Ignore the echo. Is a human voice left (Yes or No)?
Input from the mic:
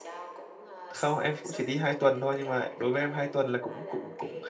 Yes